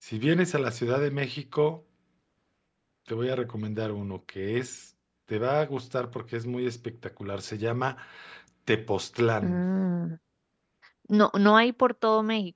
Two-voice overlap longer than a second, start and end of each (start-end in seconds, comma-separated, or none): none